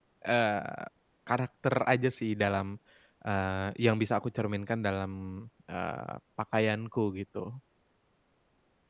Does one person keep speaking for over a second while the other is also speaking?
No

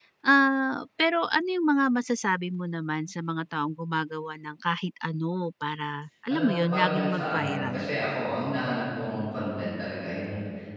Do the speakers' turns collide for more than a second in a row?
Yes, from 6.3 s

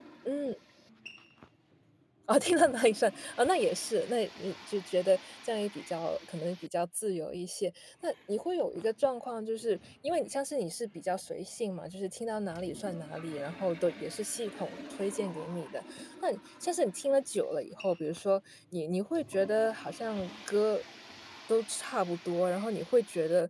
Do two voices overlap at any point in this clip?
No

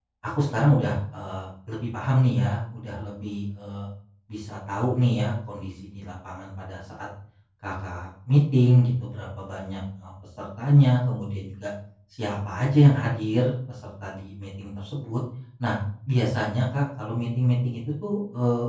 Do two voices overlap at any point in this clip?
No

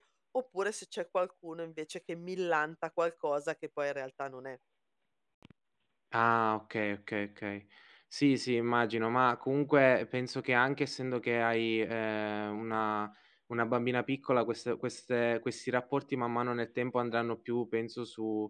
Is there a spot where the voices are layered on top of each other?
No

